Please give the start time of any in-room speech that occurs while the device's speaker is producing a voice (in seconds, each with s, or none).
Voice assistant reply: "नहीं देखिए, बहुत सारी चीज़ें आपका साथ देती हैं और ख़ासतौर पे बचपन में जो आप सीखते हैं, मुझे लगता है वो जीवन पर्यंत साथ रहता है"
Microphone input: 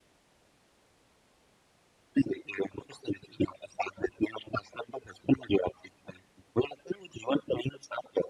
none